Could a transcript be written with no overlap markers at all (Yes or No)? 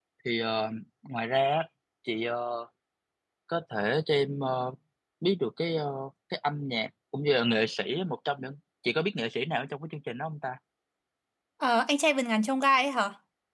Yes